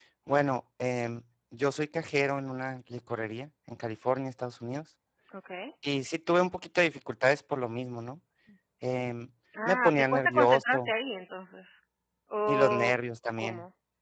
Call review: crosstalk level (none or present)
present